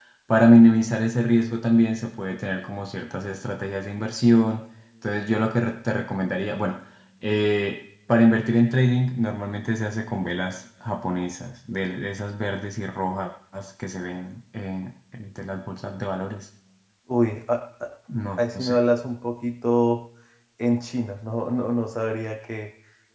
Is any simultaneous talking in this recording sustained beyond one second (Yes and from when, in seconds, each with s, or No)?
No